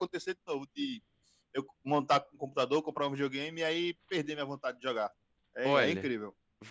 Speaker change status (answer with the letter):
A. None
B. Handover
B